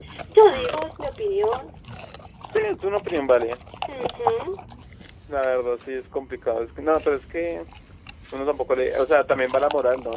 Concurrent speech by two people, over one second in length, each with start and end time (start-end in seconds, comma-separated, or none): none